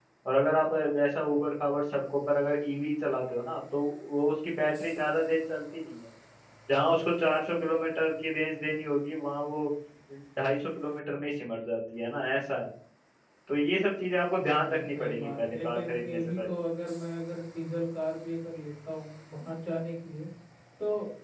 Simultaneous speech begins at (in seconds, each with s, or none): 14.3 s